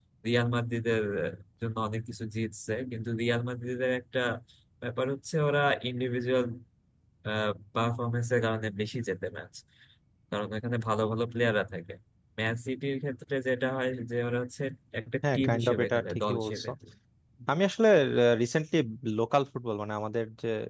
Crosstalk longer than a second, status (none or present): present